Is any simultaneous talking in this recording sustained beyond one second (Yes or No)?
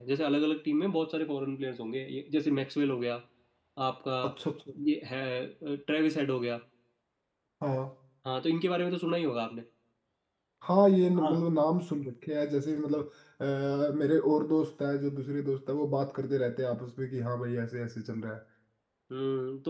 No